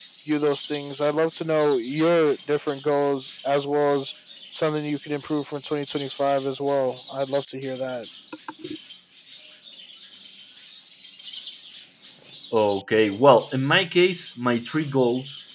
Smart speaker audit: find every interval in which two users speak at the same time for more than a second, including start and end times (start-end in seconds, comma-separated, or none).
none